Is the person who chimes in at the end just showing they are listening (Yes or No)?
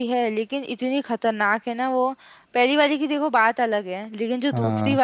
Yes